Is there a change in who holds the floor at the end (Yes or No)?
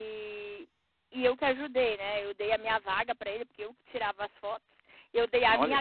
No